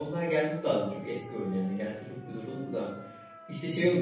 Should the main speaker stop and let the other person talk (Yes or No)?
No